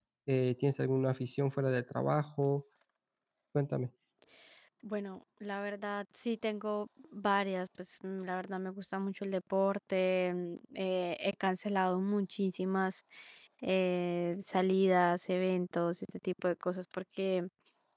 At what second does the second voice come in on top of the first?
none

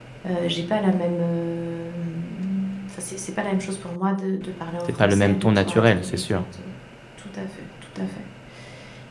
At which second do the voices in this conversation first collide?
4.9 s

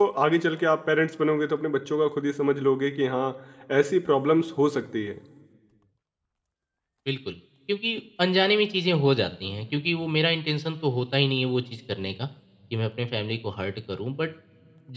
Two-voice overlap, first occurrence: none

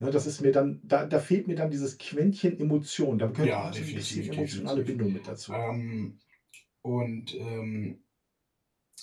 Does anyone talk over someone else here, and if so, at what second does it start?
3.4 s

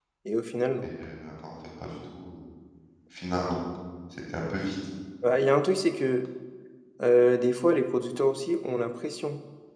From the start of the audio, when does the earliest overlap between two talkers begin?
none

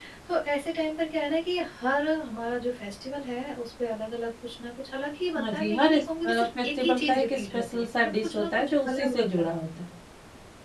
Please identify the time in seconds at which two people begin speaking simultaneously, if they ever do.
5.4 s

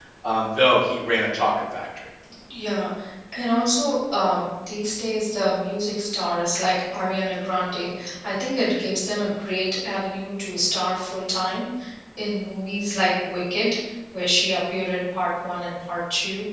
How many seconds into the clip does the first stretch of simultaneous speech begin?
none

